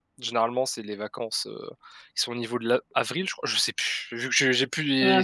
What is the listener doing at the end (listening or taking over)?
listening